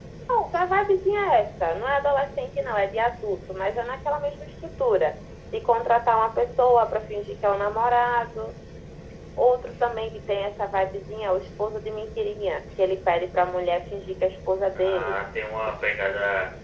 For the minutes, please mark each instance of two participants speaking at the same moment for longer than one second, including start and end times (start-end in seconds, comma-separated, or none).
none